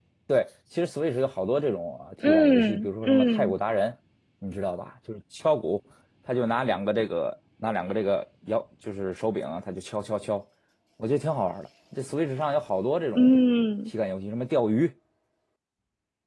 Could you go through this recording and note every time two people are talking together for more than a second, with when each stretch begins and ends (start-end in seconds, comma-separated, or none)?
2.3-3.5